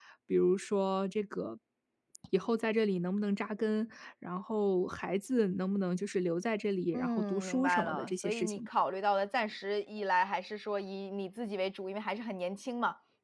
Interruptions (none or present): present